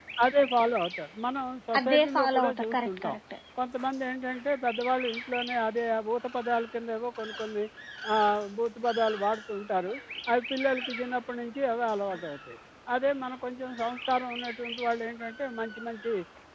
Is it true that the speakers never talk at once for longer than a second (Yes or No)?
No